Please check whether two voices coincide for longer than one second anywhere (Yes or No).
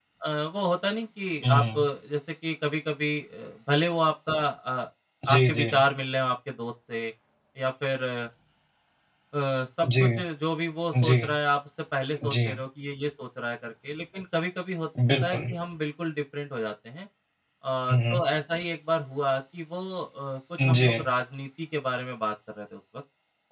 No